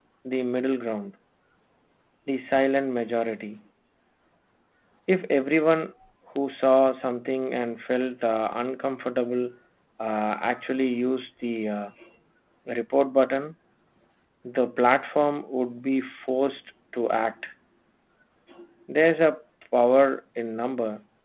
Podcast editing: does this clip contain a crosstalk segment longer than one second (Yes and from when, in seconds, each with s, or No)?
No